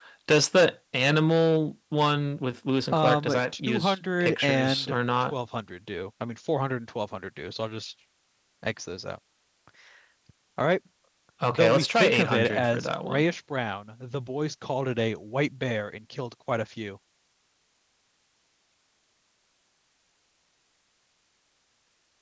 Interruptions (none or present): present